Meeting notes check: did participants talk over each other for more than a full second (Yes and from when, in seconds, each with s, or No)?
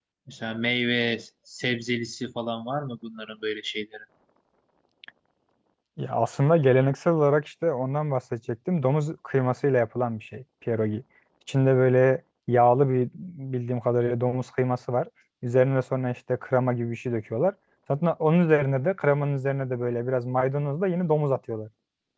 No